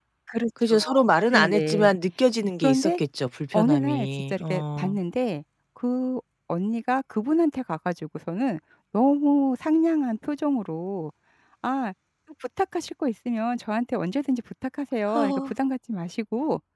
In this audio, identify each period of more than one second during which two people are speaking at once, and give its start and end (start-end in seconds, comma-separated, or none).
3.5-4.9